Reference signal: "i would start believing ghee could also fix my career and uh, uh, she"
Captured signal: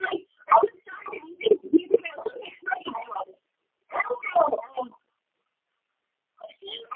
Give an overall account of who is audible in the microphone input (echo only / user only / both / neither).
echo only